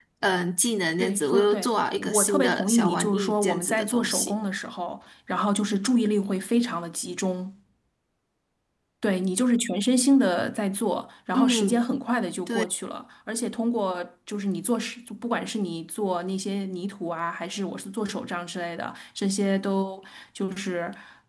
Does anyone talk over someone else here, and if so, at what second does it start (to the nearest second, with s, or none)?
1 s